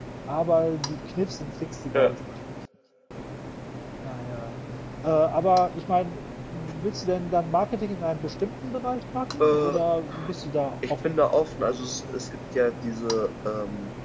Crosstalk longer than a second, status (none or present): none